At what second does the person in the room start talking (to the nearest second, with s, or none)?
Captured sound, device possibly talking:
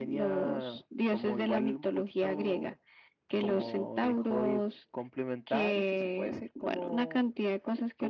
none